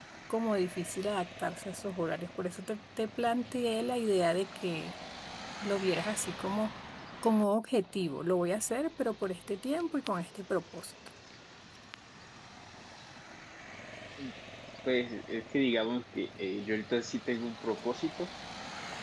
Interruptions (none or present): none